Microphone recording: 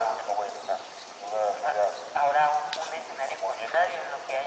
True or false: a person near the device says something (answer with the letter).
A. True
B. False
B